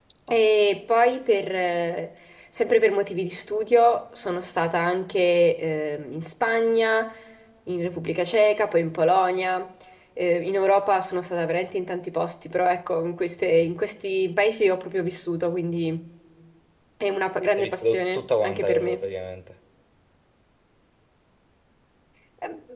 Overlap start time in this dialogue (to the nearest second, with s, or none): 18 s